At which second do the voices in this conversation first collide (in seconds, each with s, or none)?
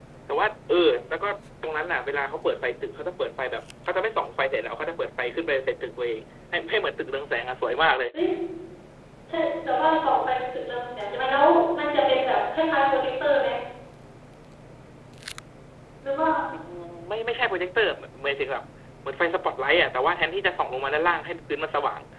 none